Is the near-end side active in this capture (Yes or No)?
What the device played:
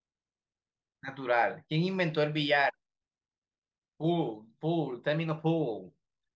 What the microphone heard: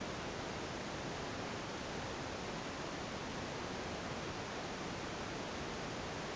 No